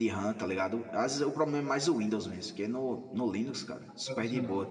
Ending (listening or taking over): listening